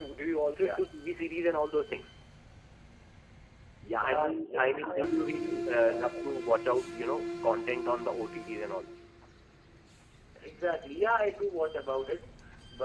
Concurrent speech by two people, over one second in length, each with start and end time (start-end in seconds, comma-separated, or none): 4.0-6.3